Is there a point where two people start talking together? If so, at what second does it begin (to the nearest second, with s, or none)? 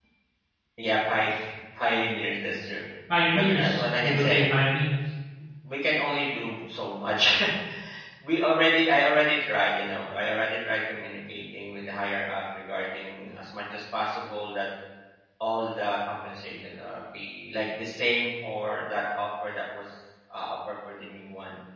3 s